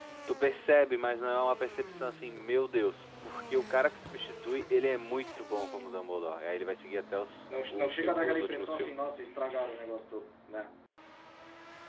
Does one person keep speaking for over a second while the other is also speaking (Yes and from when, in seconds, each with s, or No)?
Yes, from 7.5 s